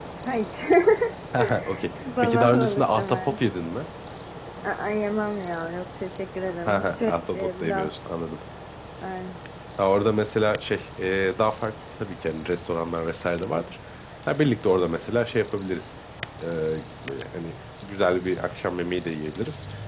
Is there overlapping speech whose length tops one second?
Yes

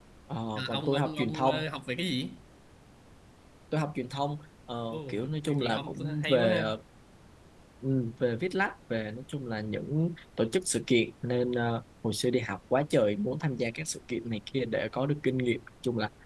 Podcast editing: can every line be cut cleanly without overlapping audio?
No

